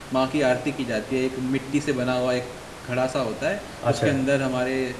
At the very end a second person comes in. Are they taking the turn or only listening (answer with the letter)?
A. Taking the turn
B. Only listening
B